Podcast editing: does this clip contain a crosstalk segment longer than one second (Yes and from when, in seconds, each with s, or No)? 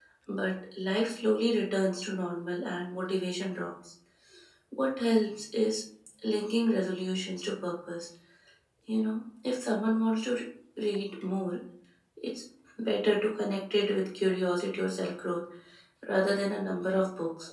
No